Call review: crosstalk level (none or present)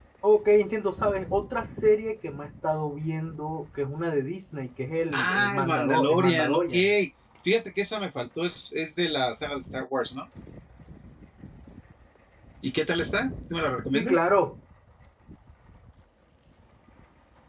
present